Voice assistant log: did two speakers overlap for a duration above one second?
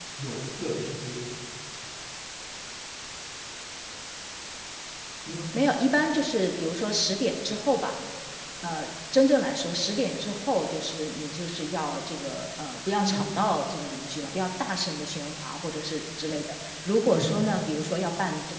No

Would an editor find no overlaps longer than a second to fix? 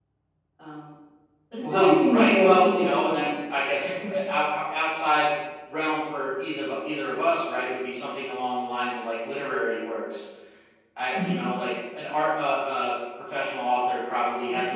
No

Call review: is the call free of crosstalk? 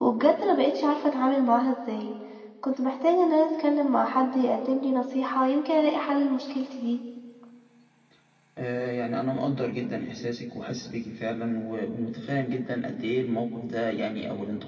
Yes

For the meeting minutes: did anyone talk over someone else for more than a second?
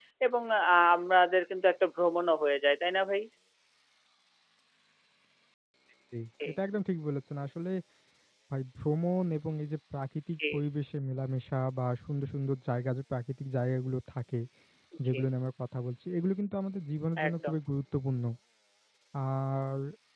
No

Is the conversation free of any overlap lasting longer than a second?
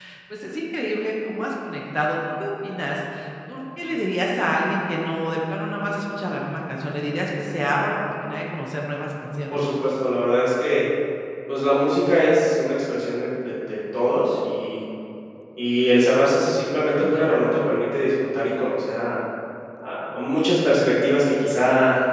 Yes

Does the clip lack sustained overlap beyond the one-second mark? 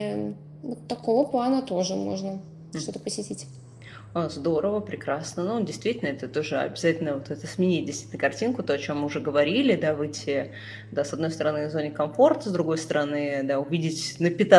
Yes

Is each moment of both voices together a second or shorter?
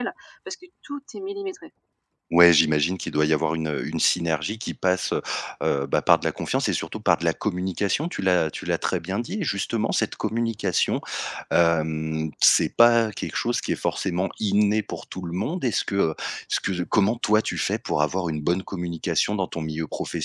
Yes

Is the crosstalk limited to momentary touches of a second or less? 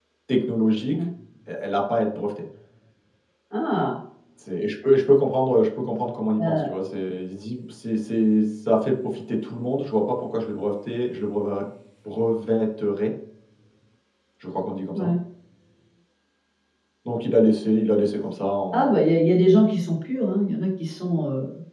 Yes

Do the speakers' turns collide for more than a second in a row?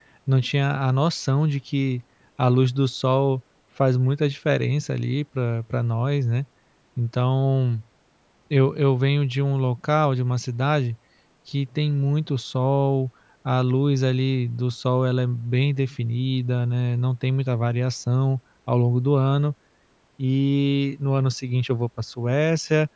No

